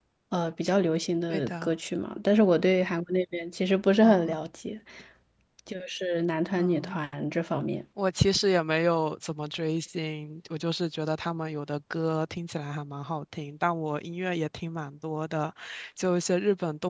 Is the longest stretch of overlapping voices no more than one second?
Yes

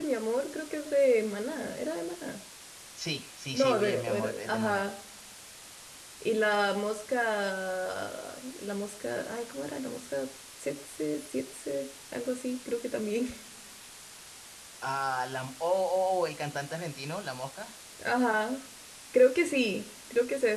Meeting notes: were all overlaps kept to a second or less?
No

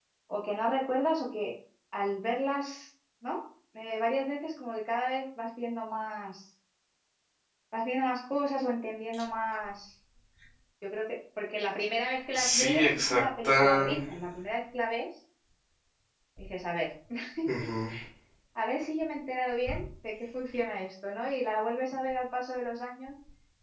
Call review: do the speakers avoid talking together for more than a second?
No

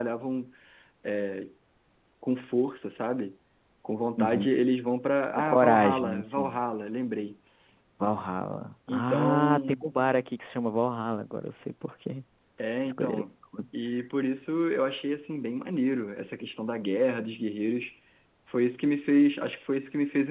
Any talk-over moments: Yes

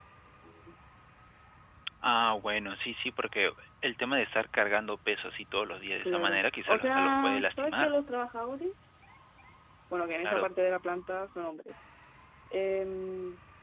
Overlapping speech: Yes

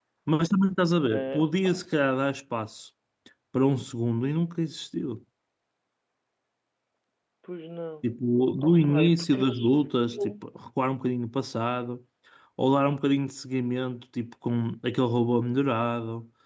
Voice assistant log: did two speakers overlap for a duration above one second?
Yes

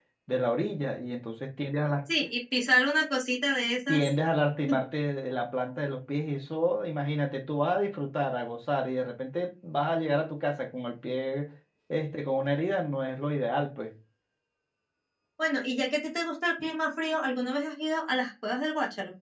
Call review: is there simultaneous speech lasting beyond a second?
No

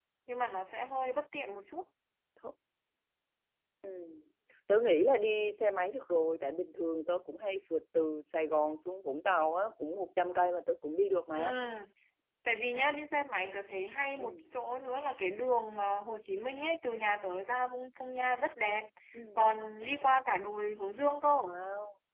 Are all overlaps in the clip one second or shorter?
Yes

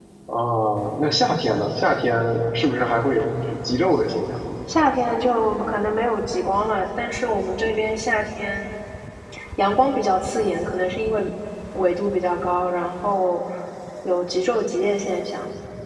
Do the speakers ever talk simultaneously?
No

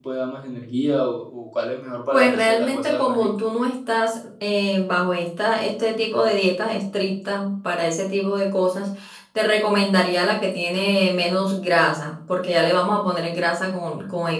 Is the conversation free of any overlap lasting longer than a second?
No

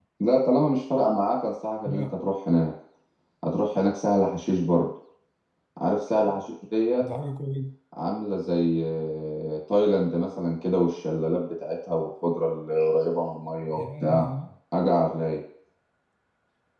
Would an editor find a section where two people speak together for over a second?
No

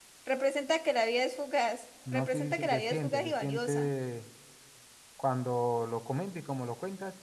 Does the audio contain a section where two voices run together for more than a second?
Yes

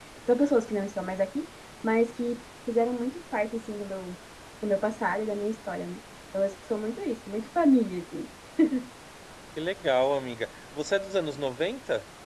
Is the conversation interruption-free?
Yes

